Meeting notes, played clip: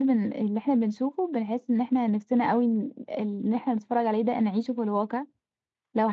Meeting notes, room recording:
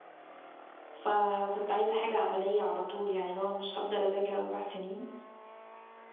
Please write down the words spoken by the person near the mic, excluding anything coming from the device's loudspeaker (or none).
فكنت عايزه حاجه عمليه على طول يعني لو أنا مش هفضل اذاكر اربع سنين